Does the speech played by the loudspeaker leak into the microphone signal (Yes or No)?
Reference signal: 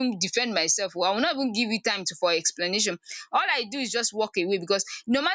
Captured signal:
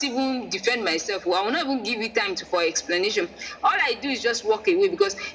Yes